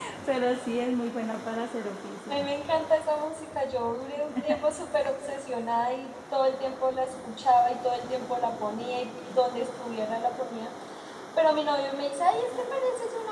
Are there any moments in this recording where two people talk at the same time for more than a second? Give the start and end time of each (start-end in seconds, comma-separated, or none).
none